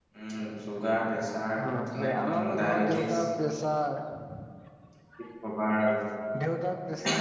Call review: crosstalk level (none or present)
present